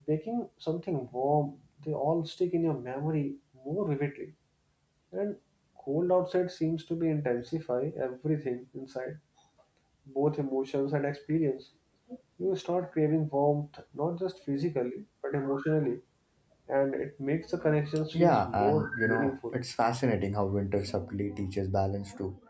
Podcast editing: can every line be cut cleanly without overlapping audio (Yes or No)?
No